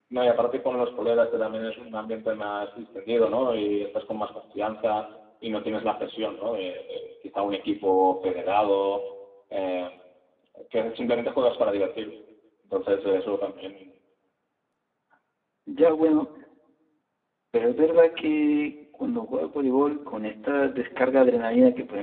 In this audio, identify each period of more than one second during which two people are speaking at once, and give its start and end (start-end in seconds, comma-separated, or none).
none